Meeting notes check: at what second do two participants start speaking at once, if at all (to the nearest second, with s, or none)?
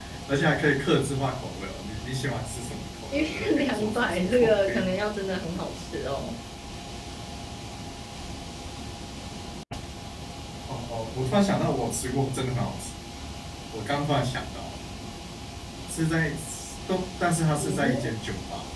3 s